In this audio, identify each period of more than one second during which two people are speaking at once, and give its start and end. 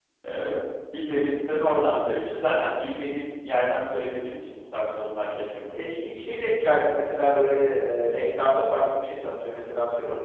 none

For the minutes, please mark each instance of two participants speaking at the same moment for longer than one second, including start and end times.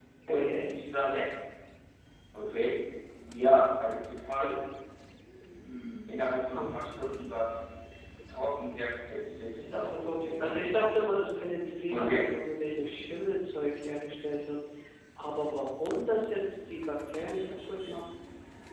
9.5-11.0

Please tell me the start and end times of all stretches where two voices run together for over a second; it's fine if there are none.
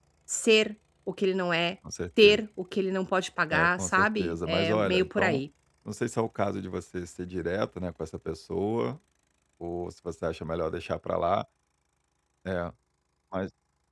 3.5-5.4

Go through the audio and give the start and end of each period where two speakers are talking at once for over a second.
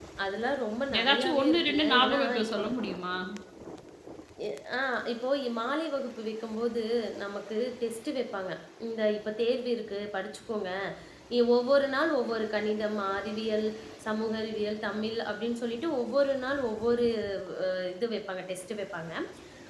1.0-2.6

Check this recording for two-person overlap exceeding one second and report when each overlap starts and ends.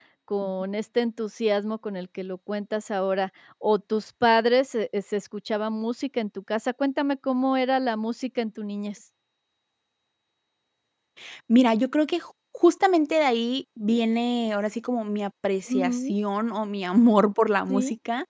none

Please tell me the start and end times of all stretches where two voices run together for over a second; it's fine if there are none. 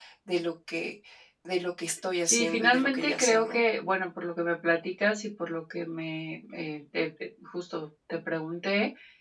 2.2-3.6

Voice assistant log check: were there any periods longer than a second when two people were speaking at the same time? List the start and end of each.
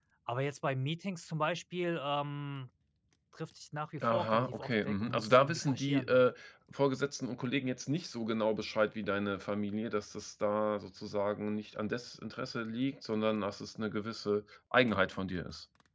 4.0-6.2

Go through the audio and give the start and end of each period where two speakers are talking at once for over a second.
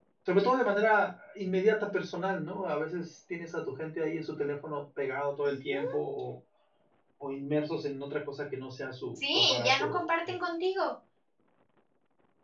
9.2-10.4

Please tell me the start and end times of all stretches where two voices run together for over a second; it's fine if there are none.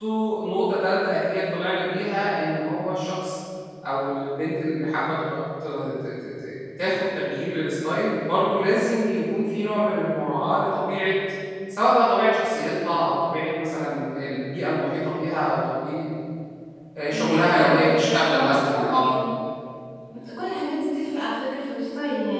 17.1-19.1

